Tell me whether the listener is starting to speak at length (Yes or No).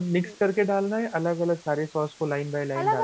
Yes